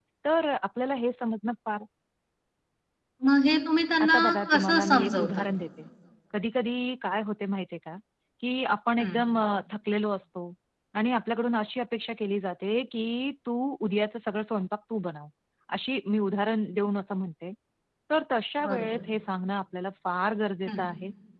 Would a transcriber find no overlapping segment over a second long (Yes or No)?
No